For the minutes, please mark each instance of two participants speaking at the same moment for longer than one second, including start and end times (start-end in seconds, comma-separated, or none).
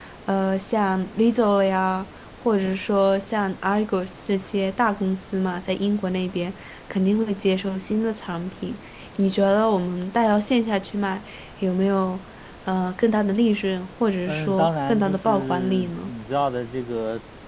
14.3-16.1